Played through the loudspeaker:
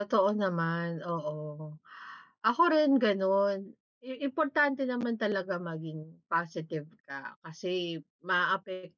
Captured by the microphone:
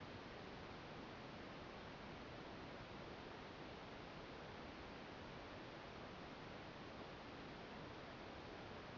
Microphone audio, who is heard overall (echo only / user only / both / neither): neither